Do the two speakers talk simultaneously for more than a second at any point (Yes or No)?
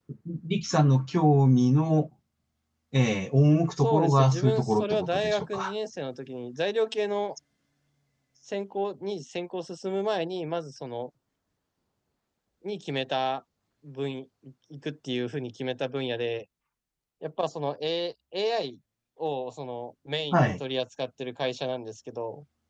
Yes